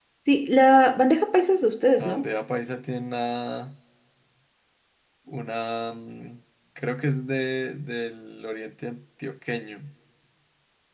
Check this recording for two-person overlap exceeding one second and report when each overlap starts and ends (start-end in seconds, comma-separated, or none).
none